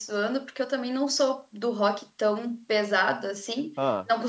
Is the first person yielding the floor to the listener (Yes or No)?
No